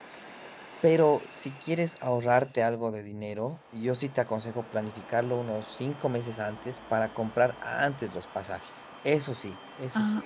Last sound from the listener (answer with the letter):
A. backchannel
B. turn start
B